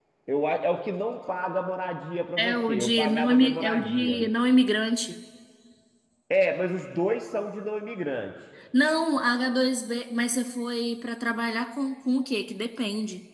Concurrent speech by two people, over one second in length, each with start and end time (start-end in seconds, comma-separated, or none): 2.4-4.2